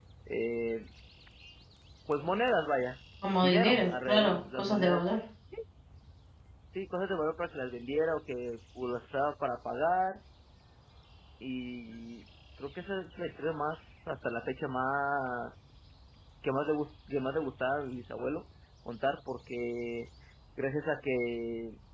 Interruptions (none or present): present